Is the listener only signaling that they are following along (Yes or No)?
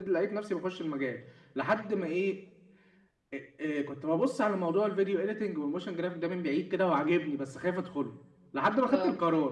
Yes